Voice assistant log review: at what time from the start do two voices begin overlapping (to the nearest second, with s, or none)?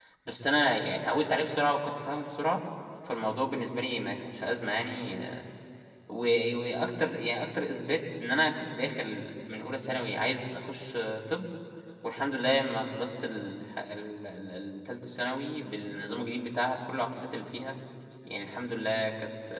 none